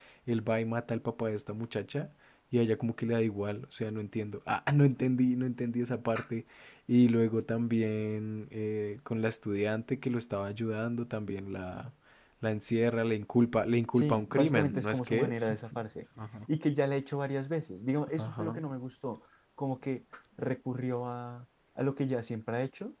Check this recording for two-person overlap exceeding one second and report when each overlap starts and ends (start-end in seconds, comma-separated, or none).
13.9-15.5